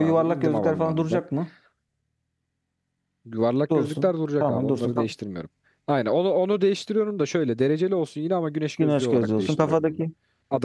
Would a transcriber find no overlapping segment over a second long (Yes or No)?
No